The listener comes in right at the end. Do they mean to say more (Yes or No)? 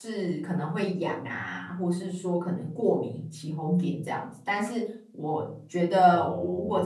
No